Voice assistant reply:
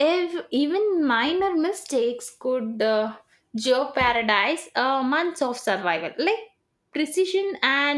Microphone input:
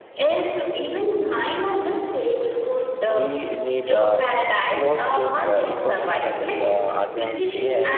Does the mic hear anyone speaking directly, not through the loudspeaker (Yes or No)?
Yes